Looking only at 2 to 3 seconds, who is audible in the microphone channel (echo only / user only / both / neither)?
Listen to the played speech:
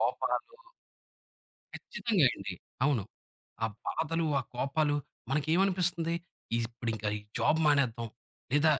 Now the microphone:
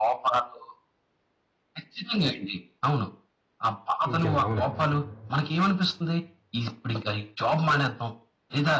echo only